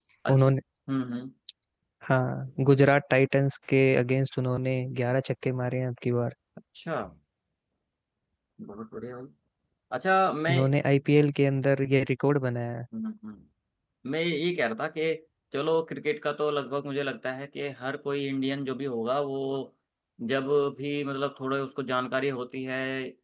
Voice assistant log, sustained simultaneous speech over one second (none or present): none